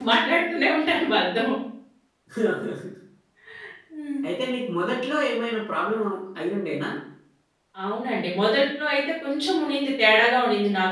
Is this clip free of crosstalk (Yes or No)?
Yes